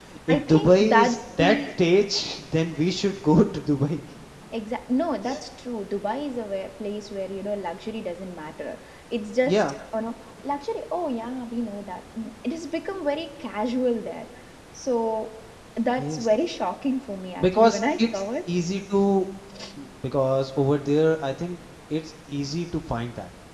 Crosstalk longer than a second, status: present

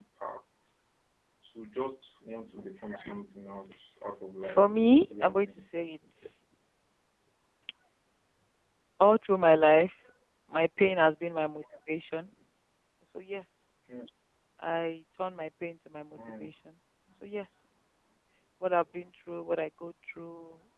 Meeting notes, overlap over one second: present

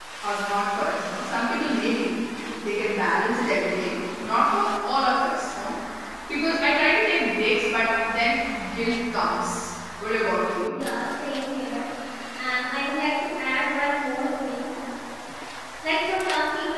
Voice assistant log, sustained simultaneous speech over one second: none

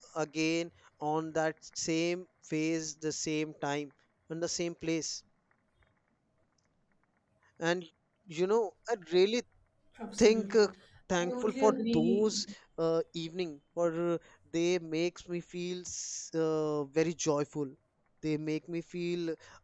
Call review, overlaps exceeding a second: present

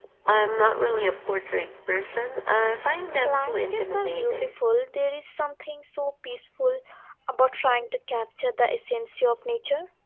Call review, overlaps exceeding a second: present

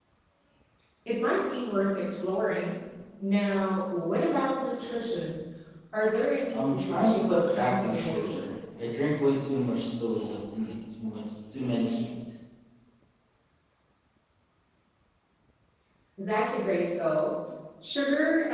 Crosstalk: present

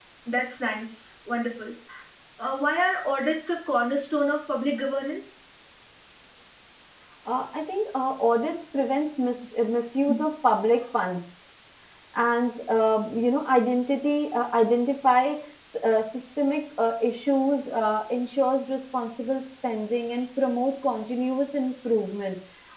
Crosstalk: none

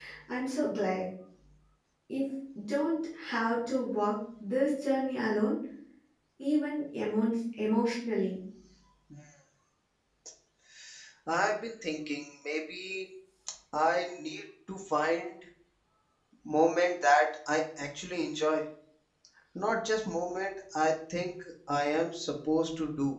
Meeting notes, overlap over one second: none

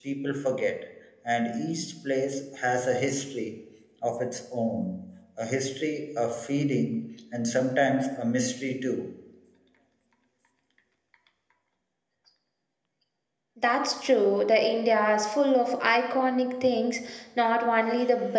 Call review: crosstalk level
none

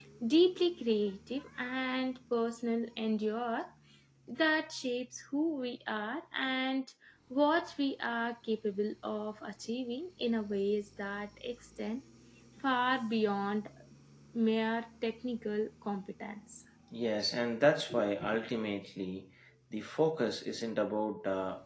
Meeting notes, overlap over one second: none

